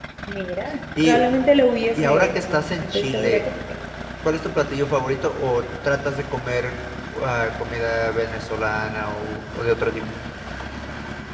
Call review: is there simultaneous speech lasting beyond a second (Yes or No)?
Yes